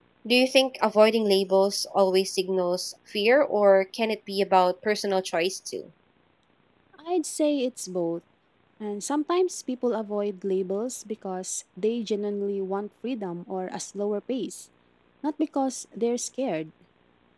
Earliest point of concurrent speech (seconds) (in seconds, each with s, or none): none